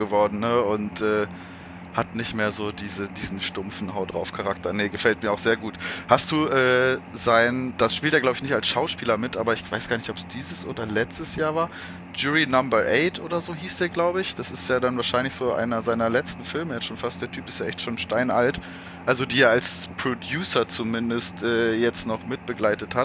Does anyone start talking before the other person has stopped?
No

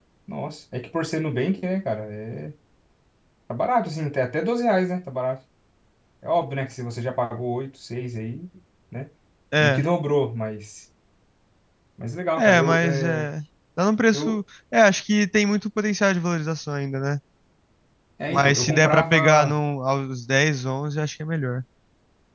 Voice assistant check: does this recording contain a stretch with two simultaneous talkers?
Yes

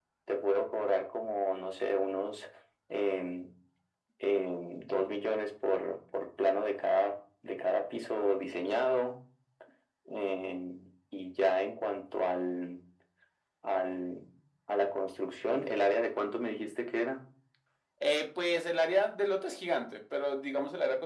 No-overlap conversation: Yes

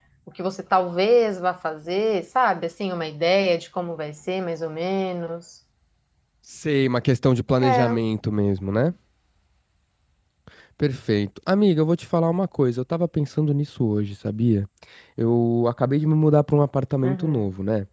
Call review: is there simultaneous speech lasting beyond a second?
No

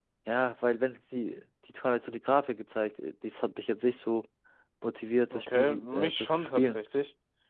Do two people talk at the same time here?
Yes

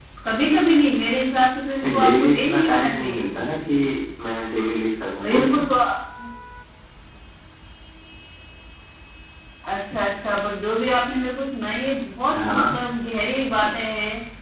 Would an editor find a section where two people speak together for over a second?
Yes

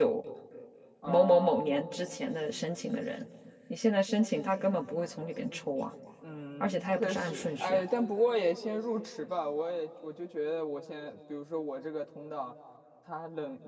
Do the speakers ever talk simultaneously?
Yes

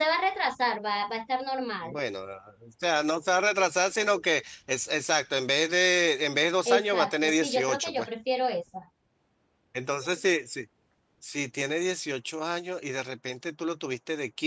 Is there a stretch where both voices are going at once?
Yes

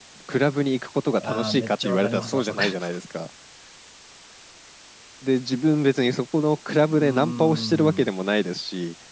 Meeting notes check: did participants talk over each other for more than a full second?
Yes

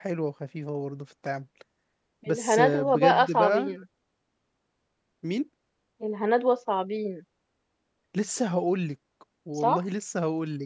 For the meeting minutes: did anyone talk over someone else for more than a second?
Yes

